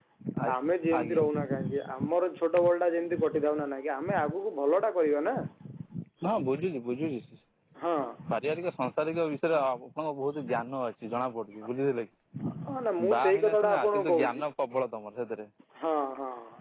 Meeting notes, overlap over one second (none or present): present